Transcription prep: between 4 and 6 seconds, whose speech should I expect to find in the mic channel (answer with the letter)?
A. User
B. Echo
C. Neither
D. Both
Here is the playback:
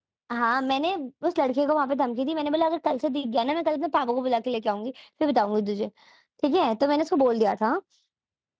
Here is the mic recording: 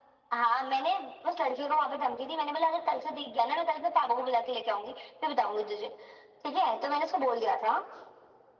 B